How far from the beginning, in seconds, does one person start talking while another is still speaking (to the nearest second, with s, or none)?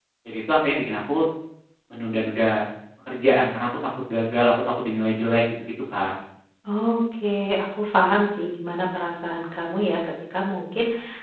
none